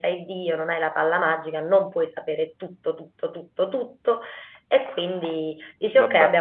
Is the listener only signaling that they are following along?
Yes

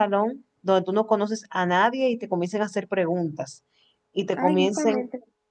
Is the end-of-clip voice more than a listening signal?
Yes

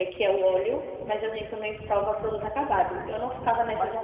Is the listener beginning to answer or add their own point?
No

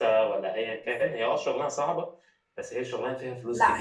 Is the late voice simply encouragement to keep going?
No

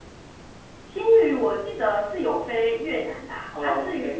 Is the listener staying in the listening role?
Yes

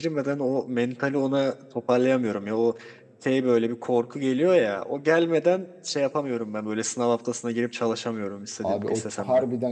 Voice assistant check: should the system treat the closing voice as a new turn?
Yes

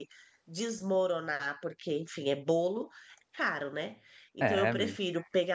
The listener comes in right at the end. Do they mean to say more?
No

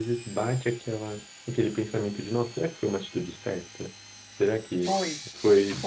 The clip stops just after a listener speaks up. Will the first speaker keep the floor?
No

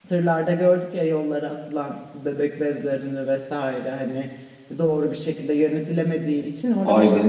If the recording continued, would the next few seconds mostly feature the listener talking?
Yes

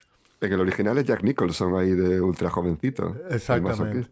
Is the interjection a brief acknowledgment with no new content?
No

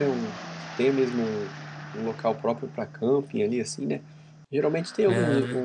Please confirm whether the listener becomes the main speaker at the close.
No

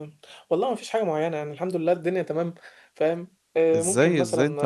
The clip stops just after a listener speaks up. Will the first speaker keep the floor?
No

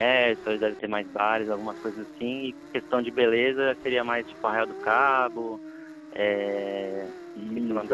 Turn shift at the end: Yes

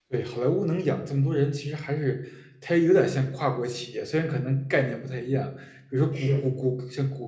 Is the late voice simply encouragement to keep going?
Yes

